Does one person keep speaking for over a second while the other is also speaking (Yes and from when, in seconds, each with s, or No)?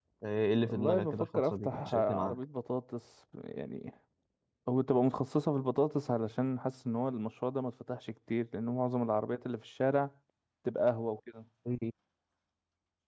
Yes, from 0.7 s